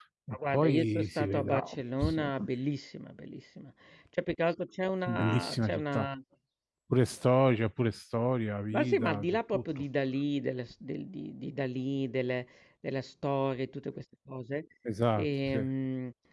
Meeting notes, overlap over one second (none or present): present